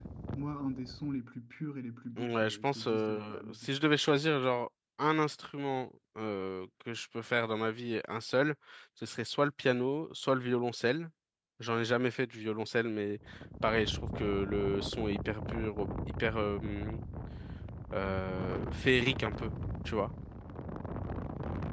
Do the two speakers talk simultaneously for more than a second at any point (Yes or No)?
Yes